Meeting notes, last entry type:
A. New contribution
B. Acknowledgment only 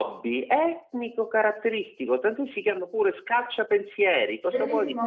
A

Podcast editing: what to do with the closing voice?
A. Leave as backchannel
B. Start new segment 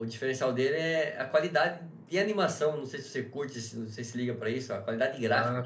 B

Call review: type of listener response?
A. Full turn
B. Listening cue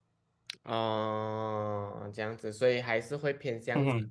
B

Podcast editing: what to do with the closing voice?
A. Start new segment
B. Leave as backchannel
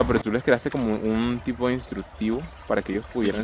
A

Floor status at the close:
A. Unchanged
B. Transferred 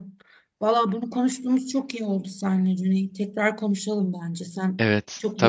B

